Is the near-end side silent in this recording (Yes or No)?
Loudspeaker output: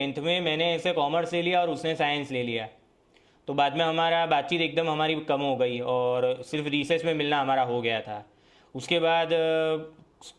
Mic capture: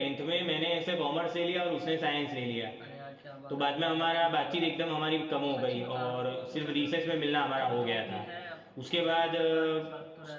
No